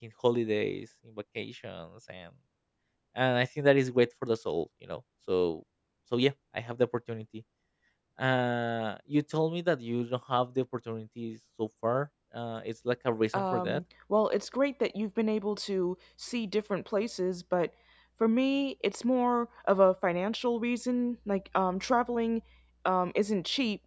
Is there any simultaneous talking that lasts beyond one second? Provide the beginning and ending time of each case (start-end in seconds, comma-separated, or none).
none